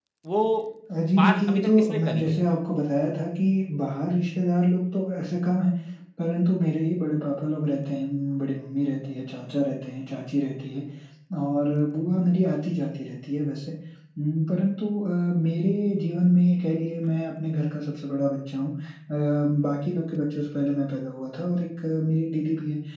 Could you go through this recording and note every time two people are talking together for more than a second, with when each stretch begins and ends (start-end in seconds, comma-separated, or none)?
1.2-2.4